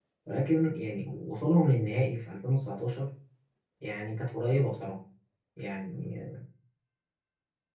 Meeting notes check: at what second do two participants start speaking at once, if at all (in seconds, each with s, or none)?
none